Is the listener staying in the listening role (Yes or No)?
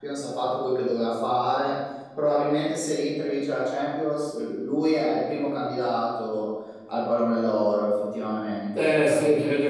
No